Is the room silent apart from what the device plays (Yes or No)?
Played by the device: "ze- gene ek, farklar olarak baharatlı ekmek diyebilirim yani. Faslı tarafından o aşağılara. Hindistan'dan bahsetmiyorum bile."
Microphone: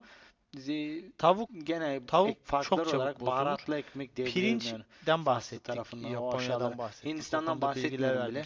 No